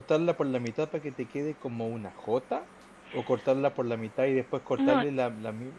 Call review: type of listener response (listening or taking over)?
listening